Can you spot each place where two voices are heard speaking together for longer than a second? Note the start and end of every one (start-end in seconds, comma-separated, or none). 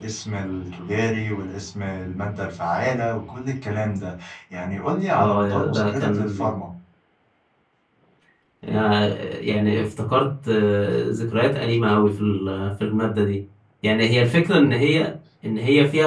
5.2-6.5